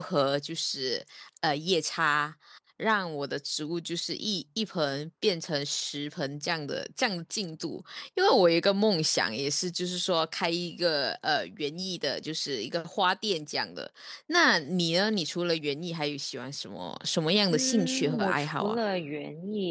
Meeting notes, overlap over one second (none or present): present